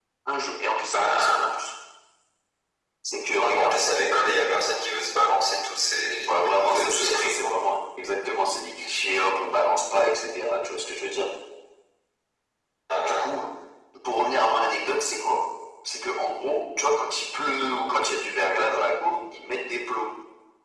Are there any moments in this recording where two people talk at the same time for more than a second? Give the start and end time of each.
6.2-7.5

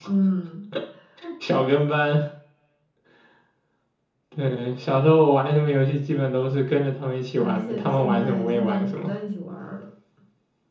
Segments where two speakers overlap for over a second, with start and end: 7.4-9.1

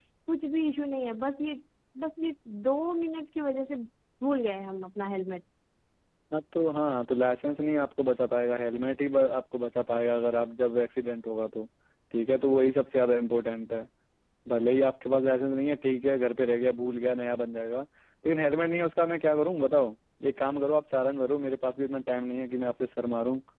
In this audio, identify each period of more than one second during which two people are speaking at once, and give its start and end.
none

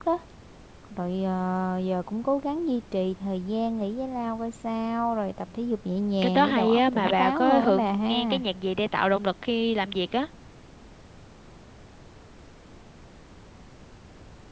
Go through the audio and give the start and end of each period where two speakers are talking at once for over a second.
6.2-8.4

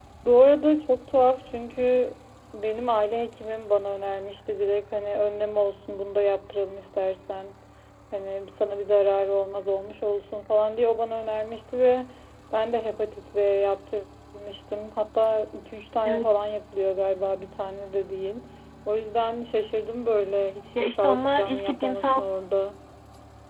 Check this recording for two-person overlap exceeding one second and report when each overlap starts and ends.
20.8-22.2

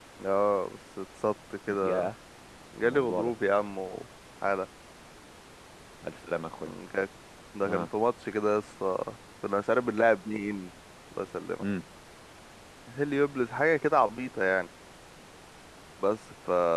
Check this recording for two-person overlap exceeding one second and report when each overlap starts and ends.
none

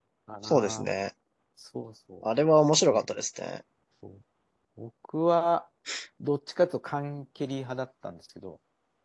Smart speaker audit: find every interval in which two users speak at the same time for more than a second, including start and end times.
none

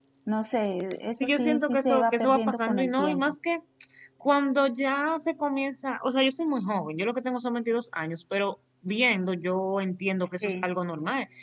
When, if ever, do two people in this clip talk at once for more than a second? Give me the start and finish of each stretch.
1.1-3.3

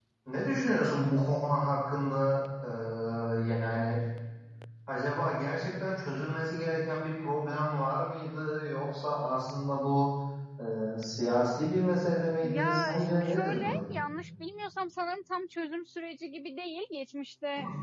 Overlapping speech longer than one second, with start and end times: 12.4-13.8

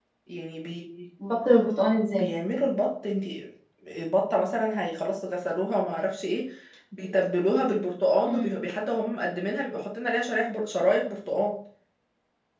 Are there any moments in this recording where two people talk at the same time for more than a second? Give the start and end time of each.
none

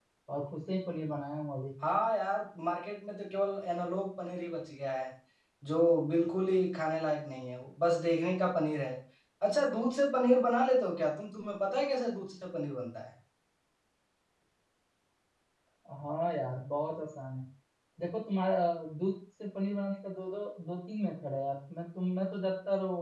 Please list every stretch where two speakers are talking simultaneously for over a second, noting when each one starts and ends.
none

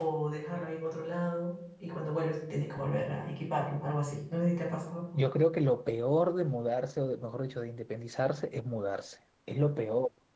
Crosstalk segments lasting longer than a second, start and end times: none

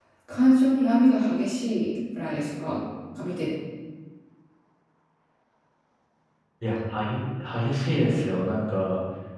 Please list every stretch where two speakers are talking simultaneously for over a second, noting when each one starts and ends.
none

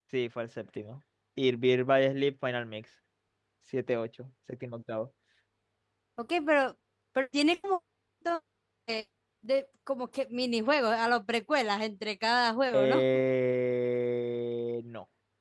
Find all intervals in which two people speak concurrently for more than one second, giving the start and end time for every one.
none

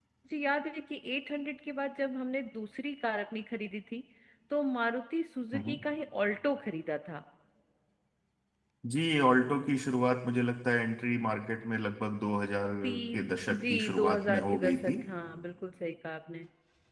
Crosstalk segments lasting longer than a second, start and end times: 13.5-14.9

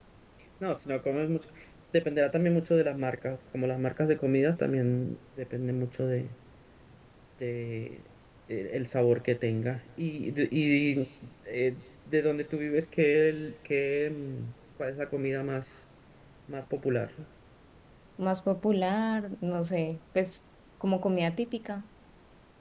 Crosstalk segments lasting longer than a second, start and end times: none

